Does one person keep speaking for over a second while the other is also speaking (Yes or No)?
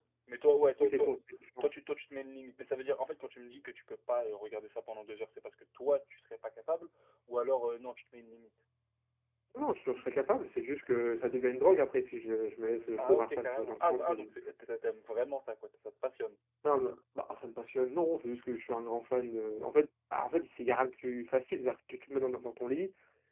Yes